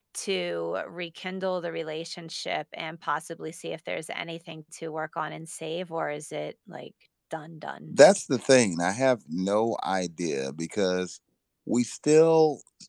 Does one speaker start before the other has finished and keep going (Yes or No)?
No